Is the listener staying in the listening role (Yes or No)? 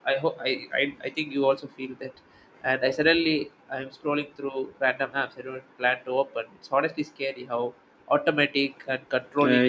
No